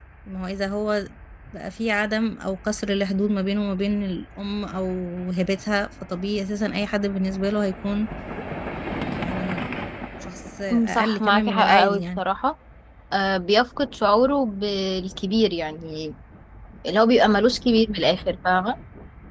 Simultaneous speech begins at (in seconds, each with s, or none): 10.7 s